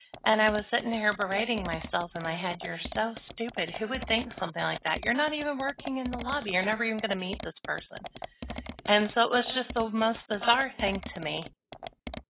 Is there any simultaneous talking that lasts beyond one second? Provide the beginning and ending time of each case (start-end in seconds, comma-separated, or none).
none